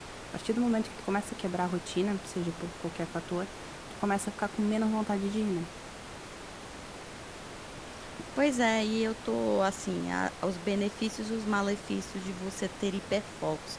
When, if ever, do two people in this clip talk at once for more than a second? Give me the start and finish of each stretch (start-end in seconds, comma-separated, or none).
none